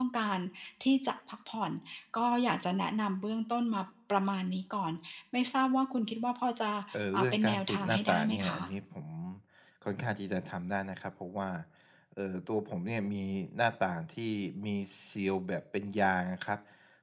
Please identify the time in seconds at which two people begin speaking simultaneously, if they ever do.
7 s

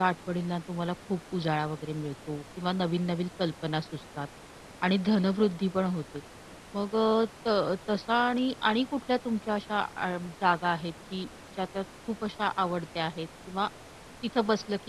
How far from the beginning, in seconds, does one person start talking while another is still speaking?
none

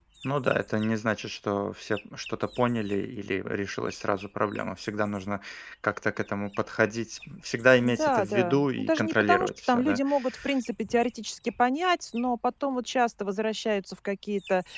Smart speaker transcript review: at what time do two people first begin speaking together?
8 s

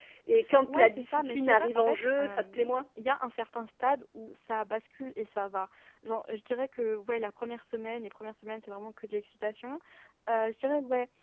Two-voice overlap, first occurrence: 1 s

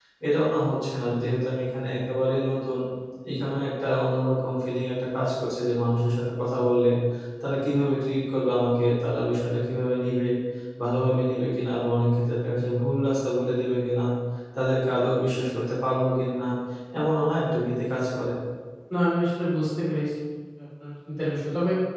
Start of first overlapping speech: none

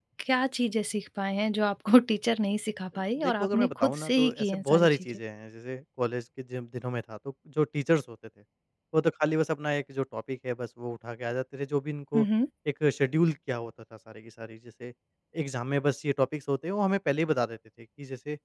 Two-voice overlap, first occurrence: 3 s

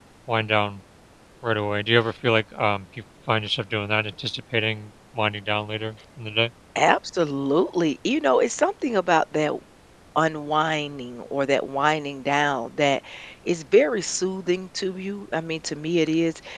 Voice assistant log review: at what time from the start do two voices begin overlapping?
none

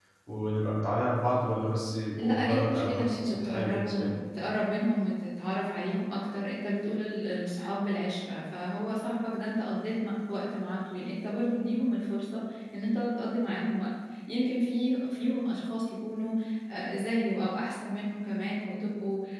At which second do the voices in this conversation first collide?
2 s

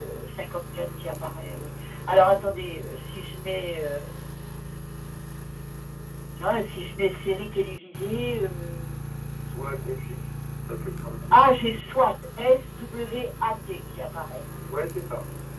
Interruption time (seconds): none

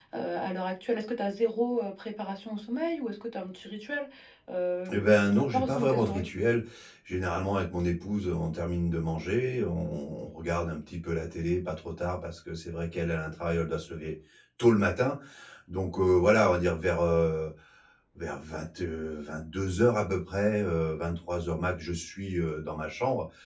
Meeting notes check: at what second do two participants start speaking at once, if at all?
5 s

